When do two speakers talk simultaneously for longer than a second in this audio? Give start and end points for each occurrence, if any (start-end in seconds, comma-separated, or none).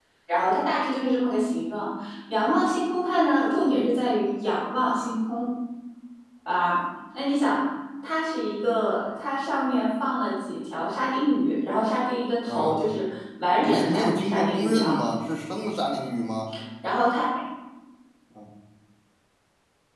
13.6-15.0